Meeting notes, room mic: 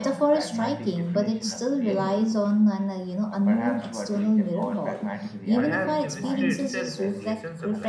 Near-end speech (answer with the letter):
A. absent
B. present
B